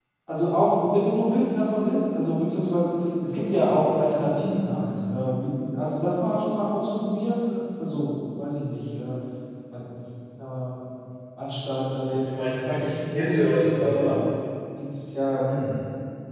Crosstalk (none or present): present